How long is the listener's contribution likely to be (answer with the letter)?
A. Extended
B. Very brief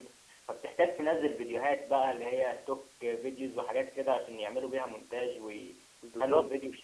B